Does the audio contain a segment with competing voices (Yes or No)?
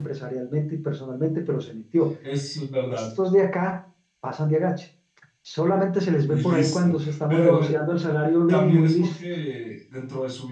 Yes